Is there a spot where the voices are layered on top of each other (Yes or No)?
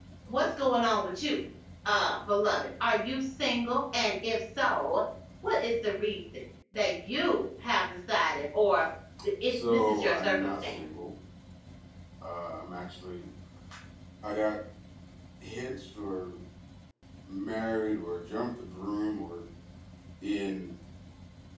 Yes